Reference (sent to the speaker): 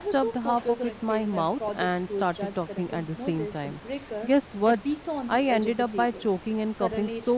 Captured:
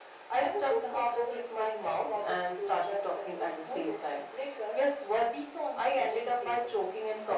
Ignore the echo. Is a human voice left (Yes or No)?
No